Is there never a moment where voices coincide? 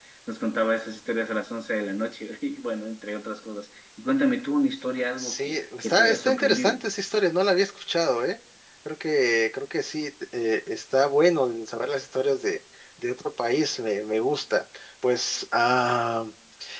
No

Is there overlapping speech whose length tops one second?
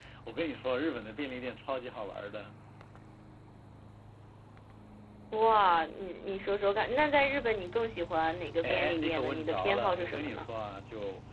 Yes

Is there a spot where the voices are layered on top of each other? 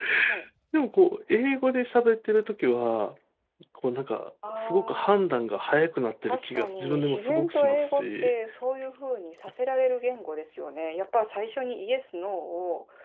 Yes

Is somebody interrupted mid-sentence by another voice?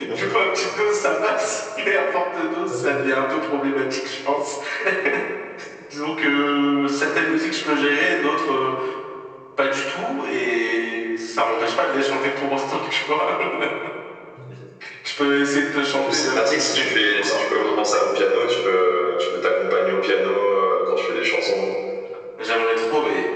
Yes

